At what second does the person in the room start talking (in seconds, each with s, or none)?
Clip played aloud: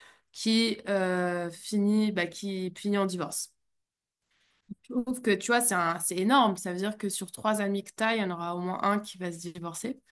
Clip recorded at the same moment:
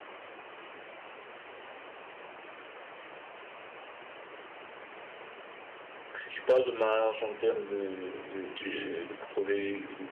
6.1 s